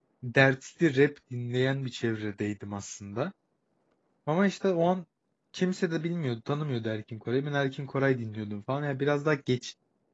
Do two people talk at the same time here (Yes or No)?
No